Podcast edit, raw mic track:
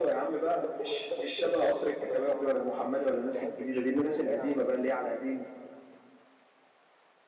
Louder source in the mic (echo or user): user